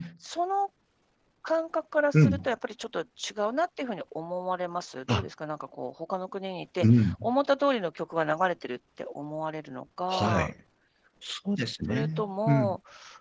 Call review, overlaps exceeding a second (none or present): none